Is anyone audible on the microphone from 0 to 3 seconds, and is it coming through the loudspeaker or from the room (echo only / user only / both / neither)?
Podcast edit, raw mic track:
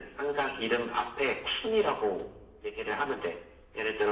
echo only